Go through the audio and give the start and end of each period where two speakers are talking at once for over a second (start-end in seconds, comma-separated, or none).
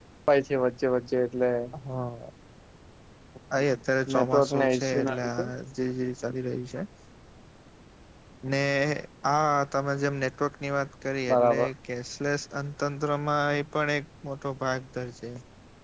4.2-5.5